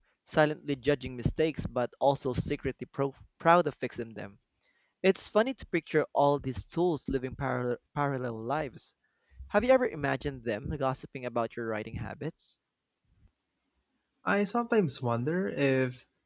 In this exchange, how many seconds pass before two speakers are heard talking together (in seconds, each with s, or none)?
none